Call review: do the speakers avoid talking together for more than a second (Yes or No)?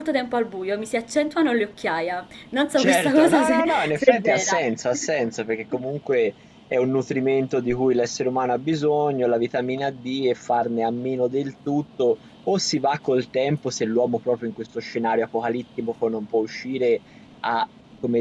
No